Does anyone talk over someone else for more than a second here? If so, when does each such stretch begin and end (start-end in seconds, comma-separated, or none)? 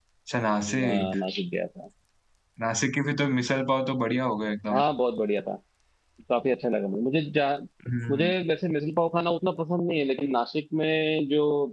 none